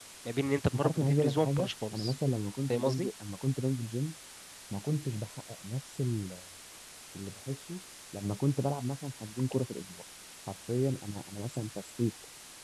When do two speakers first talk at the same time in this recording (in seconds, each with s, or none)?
0.7 s